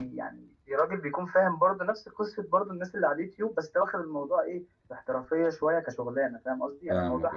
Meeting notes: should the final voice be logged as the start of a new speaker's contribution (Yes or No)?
No